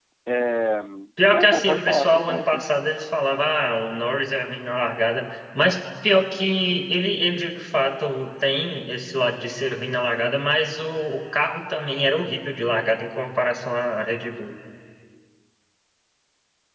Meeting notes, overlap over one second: present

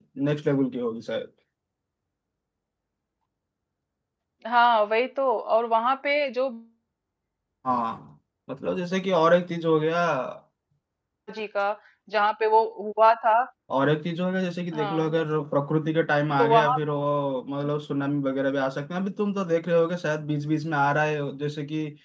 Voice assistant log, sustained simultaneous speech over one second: none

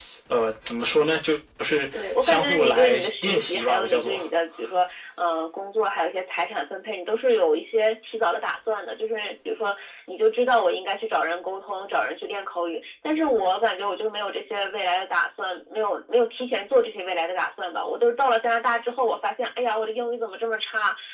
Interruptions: present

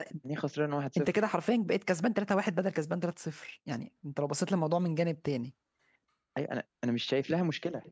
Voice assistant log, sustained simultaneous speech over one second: none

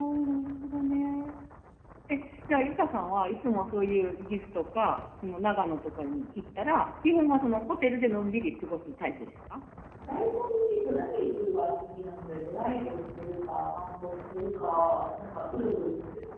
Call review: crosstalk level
none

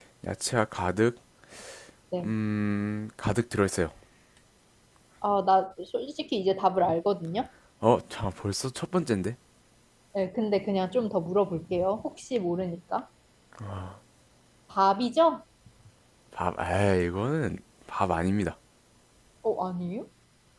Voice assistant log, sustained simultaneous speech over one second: none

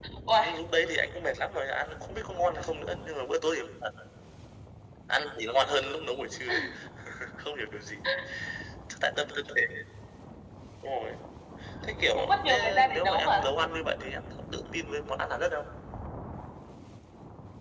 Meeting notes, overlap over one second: present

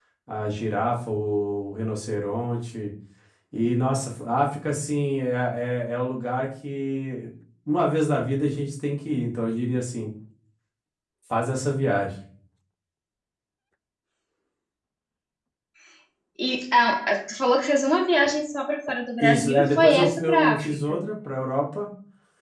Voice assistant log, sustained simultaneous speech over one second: present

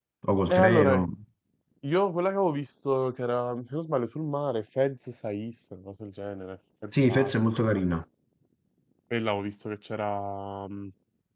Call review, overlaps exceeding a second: none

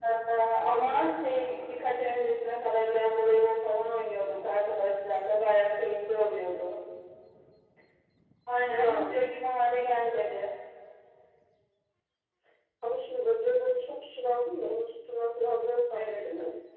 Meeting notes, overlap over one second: none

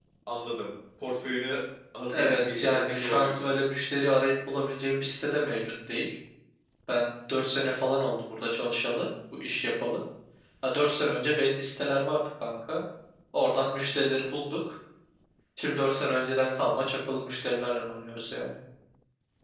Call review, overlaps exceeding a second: present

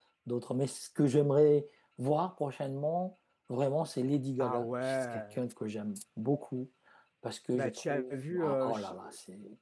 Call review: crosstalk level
present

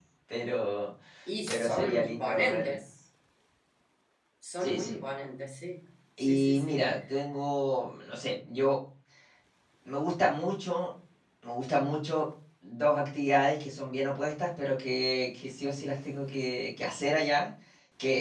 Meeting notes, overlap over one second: present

